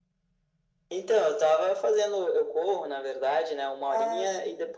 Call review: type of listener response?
listening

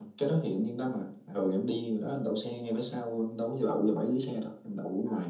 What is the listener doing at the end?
listening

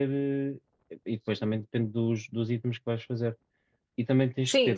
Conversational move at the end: listening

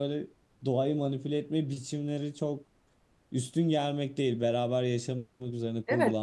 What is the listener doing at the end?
taking over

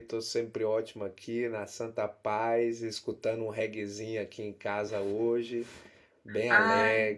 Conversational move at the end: taking over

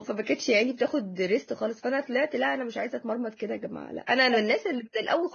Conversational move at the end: listening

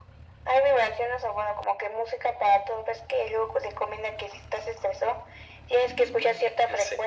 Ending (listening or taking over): listening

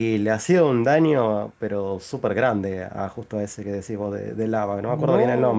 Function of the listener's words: taking over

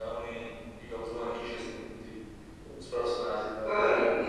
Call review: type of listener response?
taking over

